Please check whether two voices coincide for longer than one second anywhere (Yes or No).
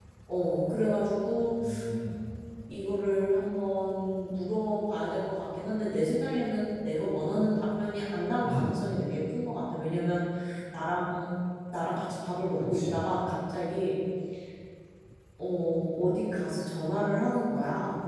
No